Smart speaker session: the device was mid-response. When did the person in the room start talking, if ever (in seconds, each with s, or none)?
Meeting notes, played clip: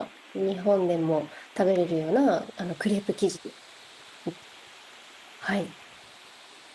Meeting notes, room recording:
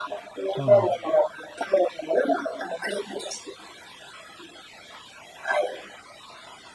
0.5 s